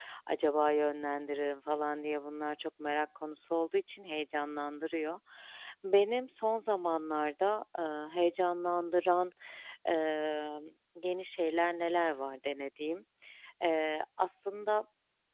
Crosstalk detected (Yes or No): No